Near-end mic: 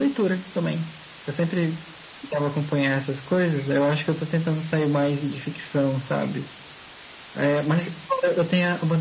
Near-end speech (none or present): none